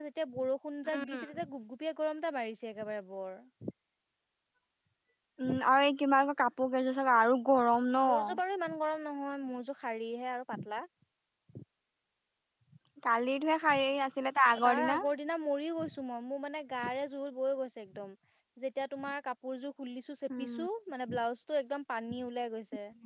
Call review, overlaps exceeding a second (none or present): none